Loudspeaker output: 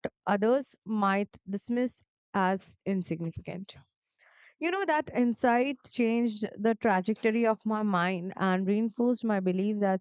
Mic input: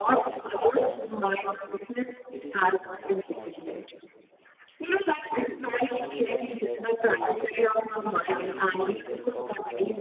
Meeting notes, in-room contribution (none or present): present